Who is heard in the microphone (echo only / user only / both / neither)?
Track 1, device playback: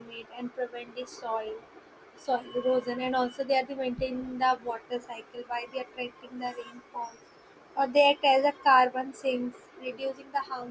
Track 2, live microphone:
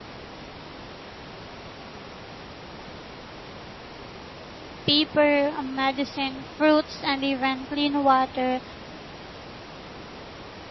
user only